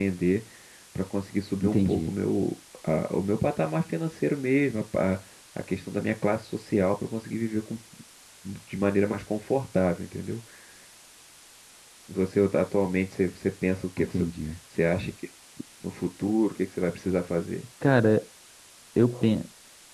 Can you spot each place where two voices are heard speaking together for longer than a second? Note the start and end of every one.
none

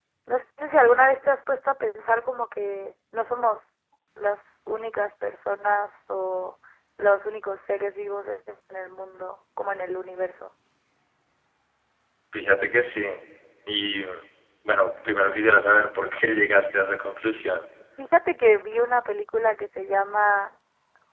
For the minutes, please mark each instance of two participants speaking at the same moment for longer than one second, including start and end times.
none

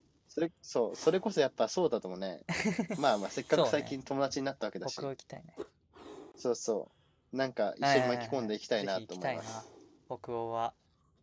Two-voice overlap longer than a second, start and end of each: 7.8-9.6

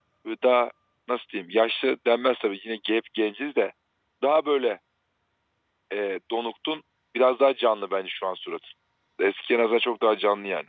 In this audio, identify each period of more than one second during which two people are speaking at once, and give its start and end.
none

